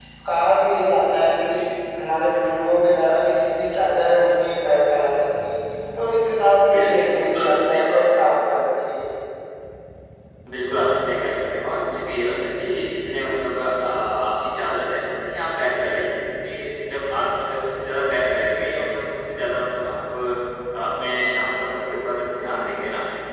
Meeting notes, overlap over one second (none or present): present